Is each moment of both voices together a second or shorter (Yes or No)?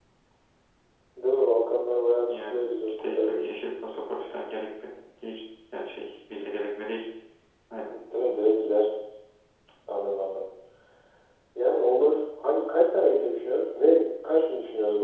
No